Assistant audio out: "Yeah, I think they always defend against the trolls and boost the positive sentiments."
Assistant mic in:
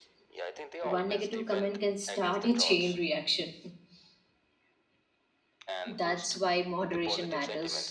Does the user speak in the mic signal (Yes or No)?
Yes